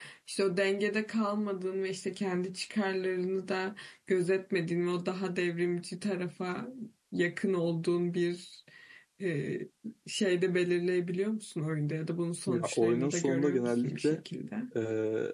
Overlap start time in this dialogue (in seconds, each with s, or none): 12.5 s